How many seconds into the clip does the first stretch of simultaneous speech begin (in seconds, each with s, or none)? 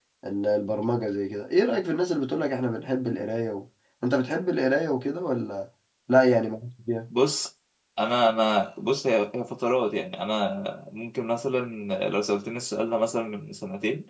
none